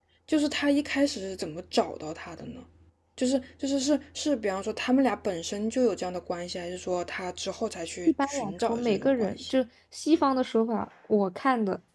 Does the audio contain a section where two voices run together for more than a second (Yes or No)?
Yes